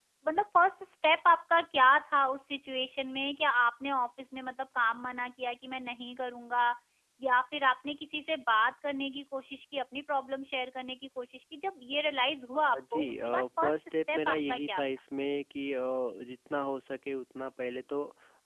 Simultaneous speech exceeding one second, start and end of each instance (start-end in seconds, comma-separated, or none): 12.6-14.8